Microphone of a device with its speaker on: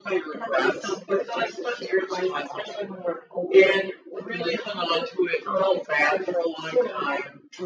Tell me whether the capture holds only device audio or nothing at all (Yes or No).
Yes